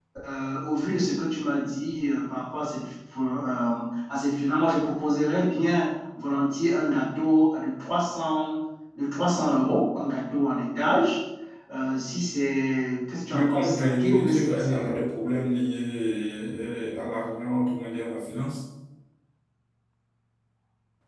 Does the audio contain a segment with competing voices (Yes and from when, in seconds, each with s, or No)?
Yes, from 13.3 s